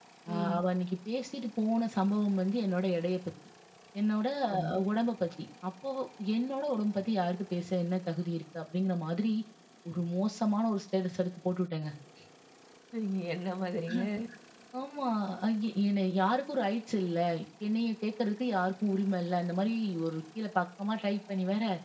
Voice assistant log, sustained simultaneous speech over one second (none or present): none